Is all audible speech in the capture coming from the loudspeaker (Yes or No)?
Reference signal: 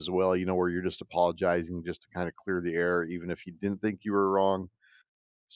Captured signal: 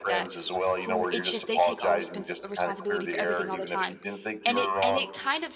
No